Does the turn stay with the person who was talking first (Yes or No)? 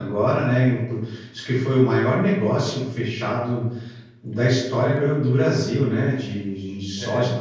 No